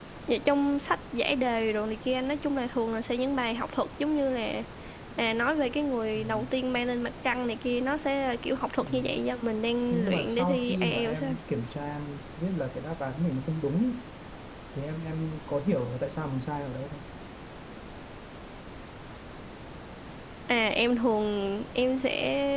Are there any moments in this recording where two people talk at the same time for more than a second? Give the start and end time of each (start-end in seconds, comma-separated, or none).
9.9-11.4